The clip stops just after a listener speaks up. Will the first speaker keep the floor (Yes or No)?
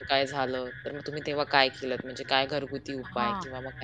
No